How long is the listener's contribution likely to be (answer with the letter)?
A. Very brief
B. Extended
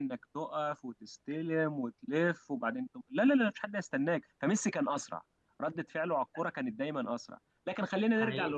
A